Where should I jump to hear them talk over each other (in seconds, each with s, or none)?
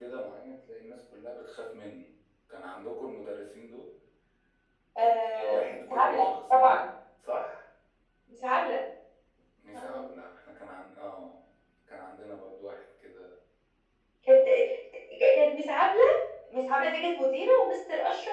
5.0 s